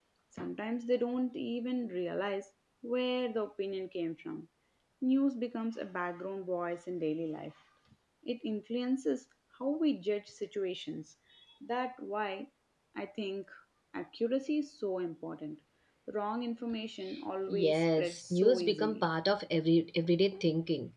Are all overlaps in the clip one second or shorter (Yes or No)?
No